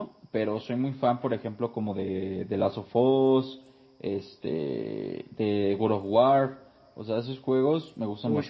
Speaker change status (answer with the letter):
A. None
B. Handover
B